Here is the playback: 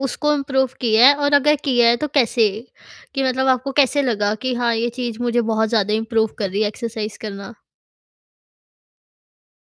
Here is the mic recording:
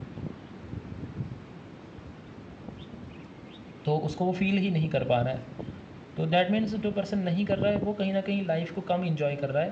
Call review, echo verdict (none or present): none